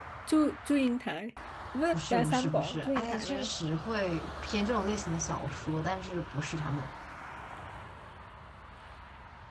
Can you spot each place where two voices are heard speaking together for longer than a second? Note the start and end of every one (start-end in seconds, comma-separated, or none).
1.9-3.5